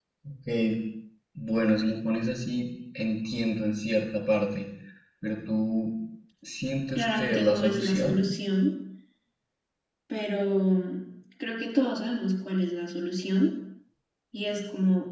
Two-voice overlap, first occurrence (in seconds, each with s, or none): 6.9 s